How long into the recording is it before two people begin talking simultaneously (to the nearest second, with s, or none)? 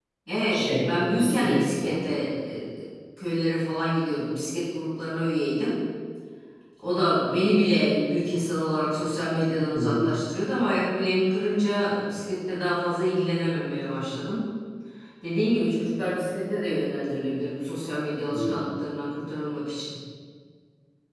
1 s